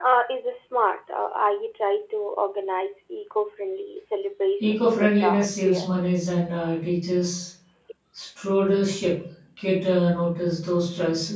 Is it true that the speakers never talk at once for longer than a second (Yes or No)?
No